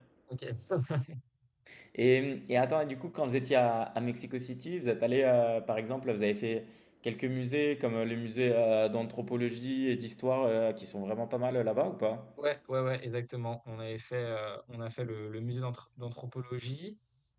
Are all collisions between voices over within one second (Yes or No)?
Yes